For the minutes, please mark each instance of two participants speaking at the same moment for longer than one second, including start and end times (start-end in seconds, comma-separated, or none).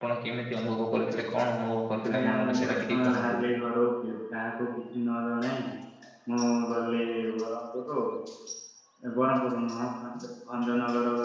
2.2-3.4